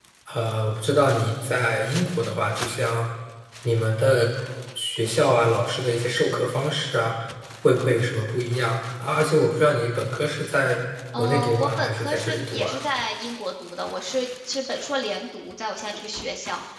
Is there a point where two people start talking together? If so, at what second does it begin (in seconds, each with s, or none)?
11.1 s